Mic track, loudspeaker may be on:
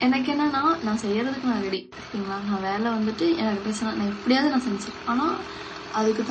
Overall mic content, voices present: user only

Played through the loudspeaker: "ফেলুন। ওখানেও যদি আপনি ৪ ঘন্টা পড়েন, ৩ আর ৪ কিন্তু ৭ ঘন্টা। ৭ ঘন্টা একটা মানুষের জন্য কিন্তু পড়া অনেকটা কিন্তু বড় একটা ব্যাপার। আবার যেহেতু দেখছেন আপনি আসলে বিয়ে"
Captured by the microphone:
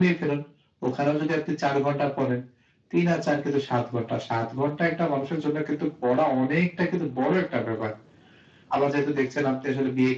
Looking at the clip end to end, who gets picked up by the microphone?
echo only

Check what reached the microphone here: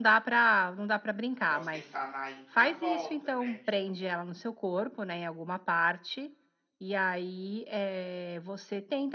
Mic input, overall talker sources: both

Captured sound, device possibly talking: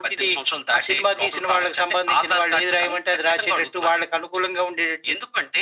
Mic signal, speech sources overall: echo only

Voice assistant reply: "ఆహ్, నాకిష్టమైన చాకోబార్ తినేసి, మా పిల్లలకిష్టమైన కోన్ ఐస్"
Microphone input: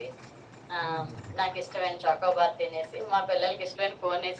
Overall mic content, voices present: both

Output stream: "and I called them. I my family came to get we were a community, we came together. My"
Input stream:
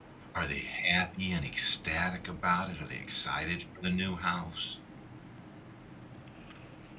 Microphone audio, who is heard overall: user only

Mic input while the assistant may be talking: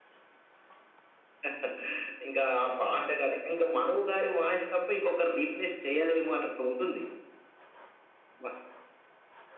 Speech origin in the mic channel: echo only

